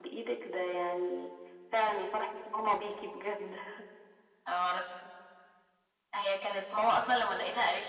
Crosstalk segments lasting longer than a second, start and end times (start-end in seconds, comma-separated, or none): none